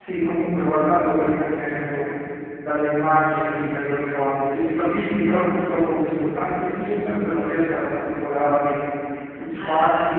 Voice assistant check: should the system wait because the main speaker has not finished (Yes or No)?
Yes